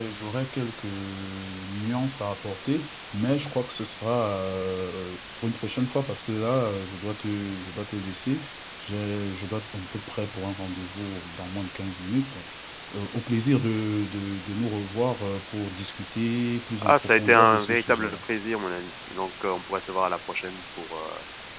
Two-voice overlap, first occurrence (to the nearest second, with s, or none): 17 s